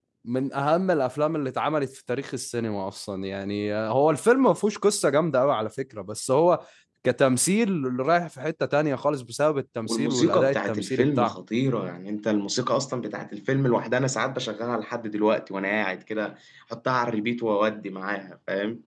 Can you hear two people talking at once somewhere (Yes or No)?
Yes